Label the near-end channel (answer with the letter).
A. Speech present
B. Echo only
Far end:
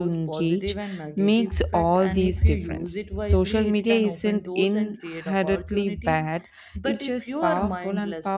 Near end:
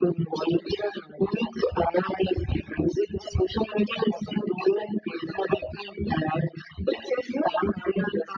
B